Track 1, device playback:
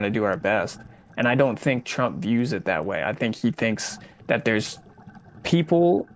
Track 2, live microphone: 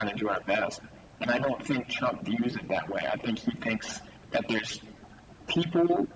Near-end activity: none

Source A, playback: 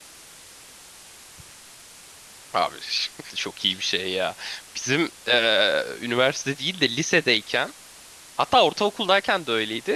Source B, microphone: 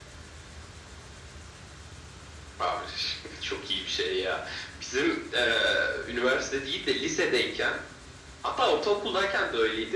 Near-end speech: none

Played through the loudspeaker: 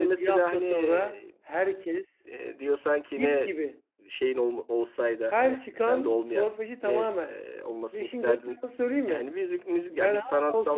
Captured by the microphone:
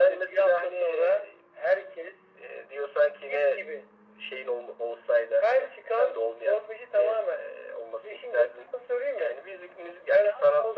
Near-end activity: none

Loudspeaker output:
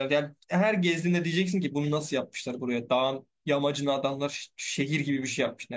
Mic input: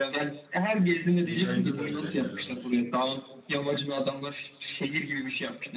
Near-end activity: present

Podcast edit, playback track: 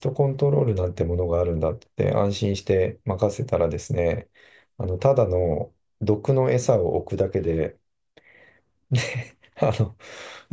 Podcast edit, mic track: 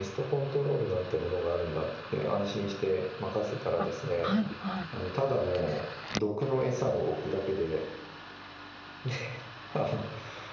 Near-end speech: present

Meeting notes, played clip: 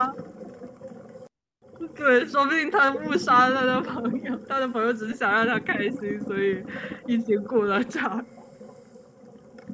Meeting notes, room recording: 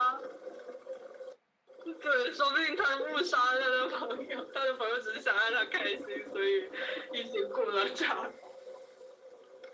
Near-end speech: none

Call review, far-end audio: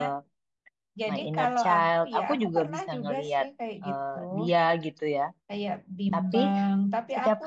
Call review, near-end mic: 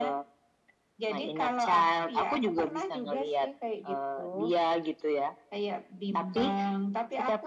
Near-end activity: none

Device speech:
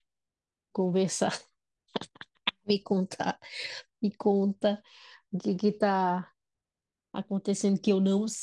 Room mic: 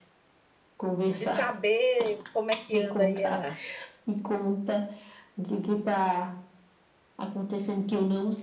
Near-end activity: present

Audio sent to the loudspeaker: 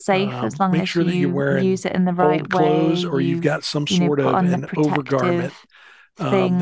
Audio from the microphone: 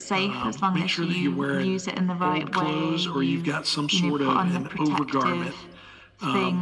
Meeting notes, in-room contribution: none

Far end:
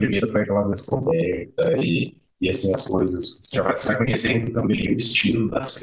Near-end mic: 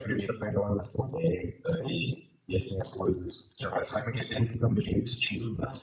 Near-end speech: none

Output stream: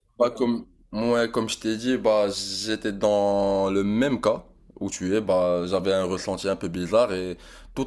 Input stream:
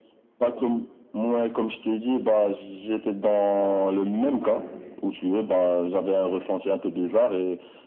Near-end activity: present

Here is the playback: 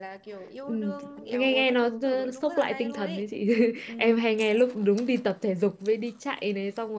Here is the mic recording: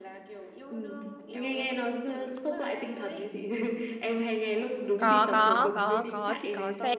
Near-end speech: present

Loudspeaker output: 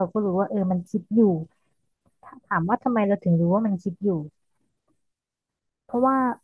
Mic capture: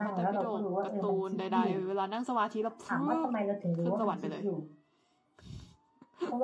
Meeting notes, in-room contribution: present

